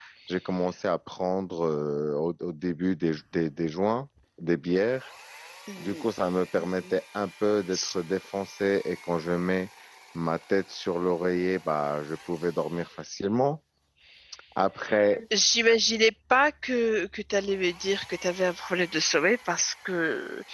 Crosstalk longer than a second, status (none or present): none